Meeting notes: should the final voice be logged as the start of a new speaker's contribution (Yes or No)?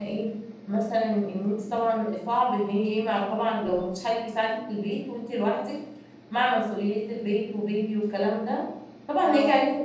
No